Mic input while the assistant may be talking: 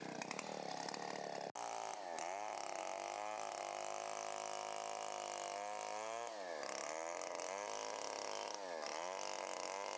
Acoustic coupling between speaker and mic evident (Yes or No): No